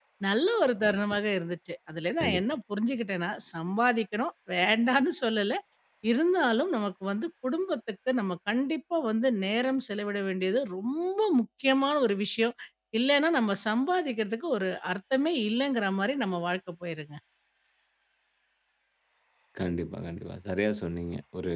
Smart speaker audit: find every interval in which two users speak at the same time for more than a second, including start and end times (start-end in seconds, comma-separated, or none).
none